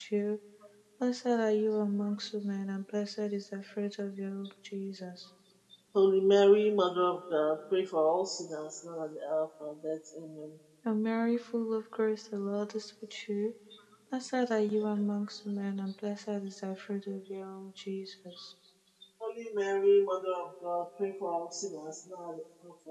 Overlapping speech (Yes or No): No